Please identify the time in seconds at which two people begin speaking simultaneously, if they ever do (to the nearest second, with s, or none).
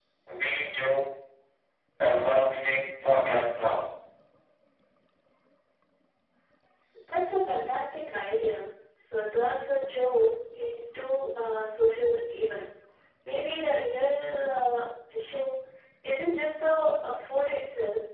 none